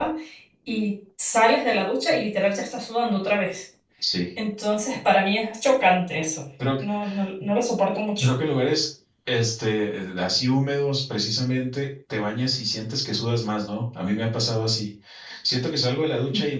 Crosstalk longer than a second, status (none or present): none